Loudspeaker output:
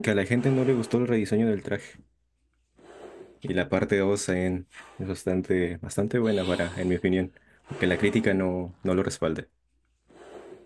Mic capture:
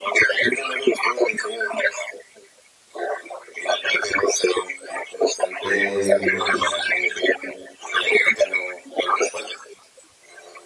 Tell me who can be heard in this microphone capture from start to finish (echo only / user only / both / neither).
both